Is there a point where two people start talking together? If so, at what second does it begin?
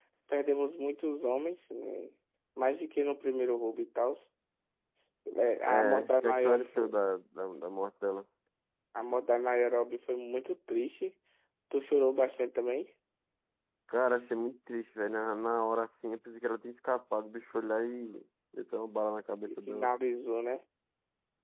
5.7 s

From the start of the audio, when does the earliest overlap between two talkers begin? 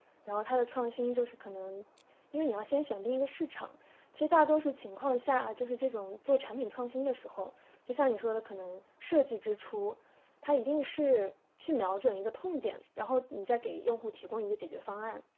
none

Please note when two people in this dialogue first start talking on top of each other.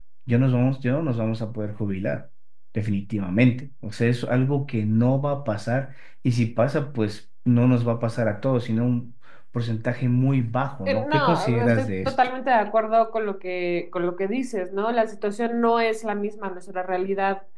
10.9 s

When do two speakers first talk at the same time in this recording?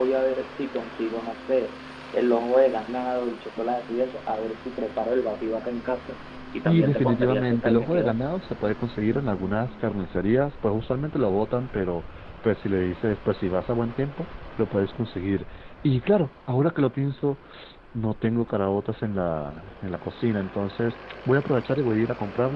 6.5 s

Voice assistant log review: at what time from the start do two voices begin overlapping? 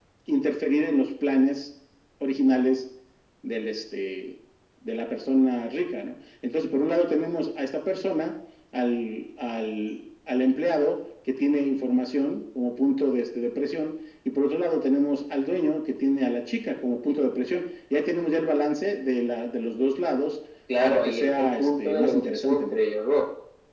20.8 s

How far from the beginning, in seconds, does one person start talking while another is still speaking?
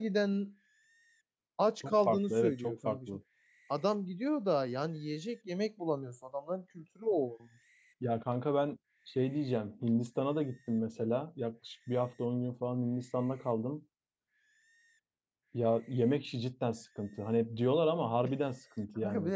1.8 s

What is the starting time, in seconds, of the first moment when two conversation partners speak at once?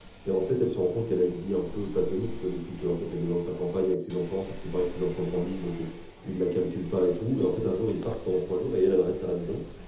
none

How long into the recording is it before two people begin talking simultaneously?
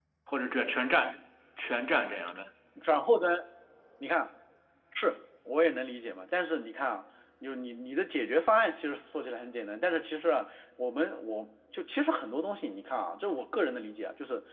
none

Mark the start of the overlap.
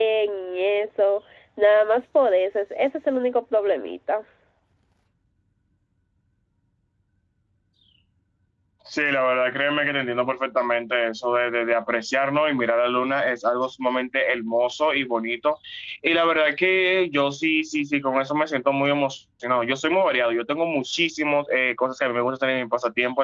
none

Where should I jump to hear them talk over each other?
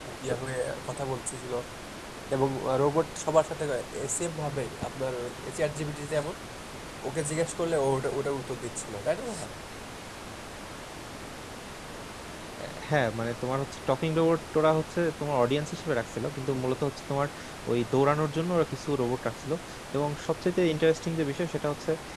none

